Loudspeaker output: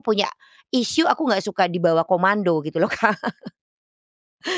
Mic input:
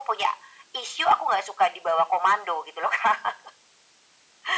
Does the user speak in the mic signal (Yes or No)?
No